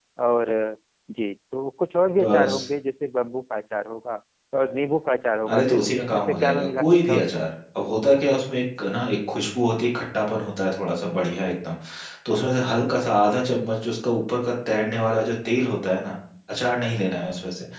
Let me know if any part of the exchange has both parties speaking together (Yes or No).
Yes